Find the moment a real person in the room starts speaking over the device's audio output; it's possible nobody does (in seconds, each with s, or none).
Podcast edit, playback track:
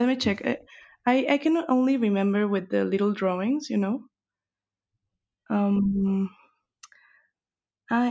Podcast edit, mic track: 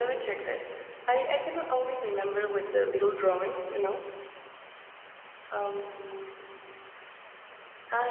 none